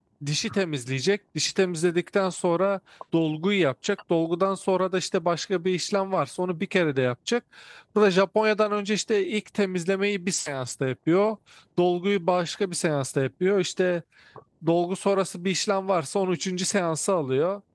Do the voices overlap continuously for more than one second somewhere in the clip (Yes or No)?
No